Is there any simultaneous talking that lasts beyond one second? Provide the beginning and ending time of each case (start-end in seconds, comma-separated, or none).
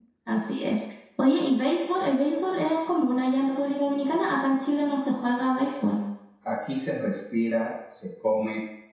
none